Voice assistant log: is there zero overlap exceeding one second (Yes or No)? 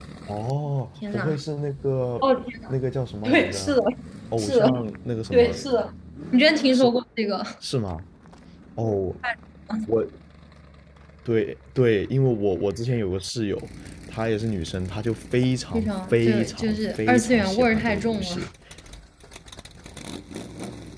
No